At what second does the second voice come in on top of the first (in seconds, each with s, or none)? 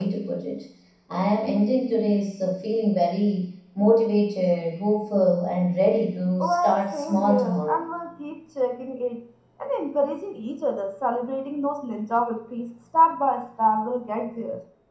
6.4 s